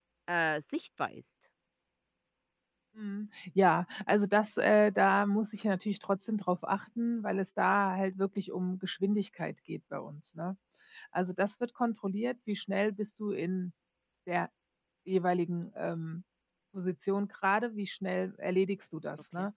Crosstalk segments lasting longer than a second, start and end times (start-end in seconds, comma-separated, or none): none